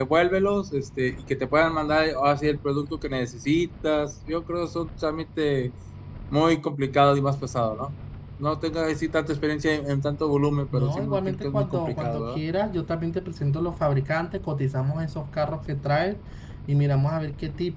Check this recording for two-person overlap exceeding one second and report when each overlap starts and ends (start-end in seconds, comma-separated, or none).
10.7-12.4